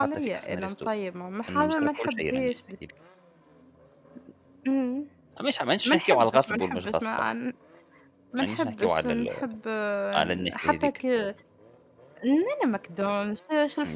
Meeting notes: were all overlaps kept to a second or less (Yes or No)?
No